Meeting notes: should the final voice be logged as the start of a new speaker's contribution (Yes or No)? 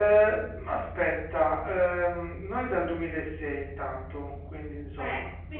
Yes